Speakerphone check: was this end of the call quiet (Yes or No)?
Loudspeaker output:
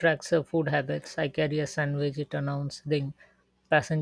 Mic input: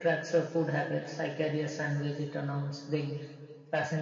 Yes